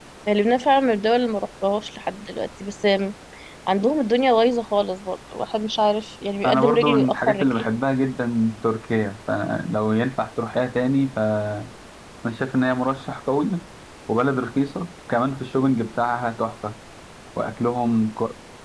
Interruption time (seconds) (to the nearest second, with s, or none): 6 s